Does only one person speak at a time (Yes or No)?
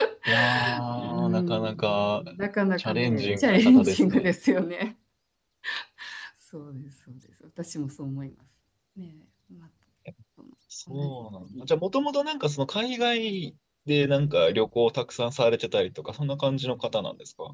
No